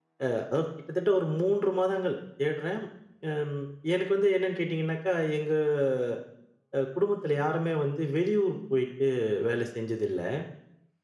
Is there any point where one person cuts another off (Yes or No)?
No